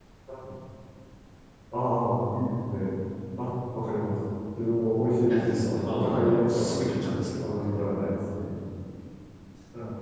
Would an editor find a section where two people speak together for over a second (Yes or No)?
Yes